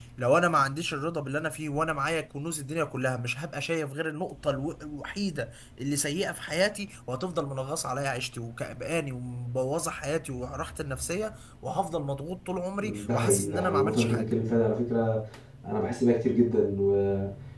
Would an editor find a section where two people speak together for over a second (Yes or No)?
Yes